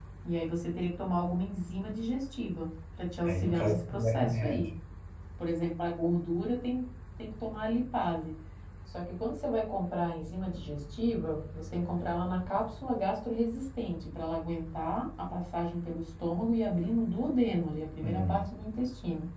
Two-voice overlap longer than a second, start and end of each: 3.2-4.7

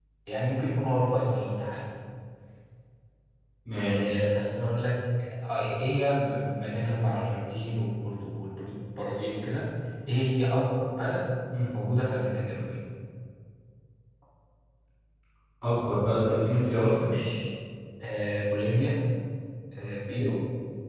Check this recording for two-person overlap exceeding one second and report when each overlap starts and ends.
none

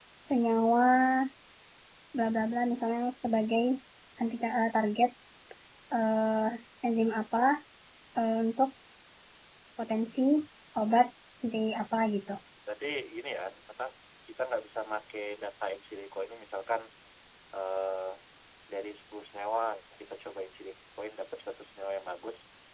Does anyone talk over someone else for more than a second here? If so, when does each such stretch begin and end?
none

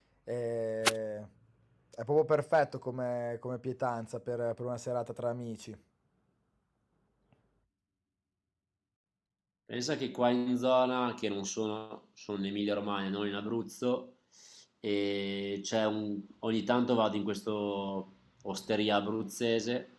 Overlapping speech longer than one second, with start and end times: none

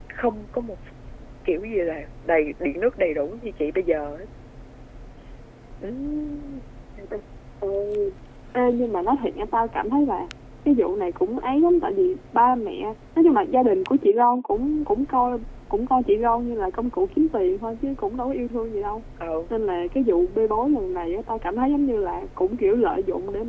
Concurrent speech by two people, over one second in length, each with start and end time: none

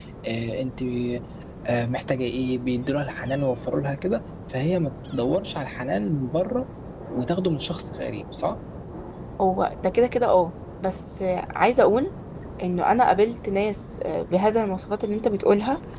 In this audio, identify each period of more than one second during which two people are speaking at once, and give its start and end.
none

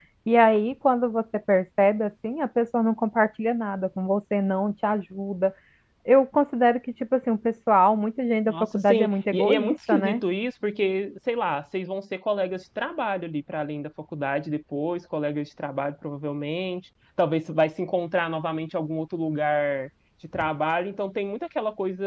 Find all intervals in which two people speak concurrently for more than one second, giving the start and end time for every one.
8.4-10.2

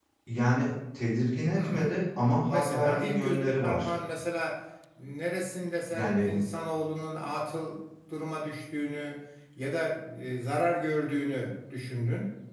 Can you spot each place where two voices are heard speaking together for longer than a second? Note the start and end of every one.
2.5-3.9

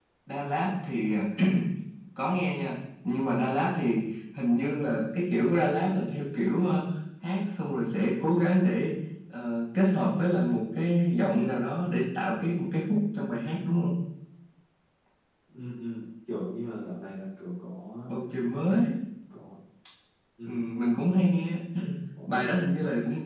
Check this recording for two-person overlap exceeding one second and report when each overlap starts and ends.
none

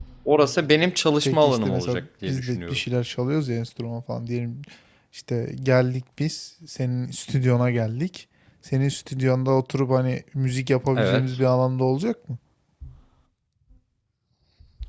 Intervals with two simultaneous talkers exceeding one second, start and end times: 1.2-2.8

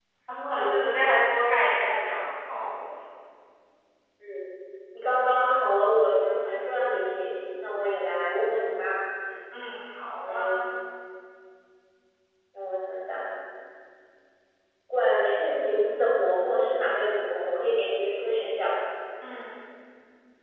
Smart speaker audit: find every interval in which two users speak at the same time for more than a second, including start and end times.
none

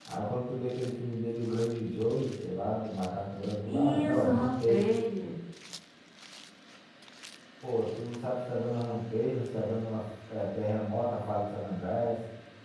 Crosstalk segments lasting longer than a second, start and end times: 3.6-4.9

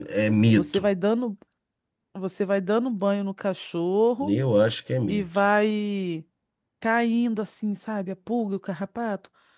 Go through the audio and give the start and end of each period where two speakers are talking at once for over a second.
none

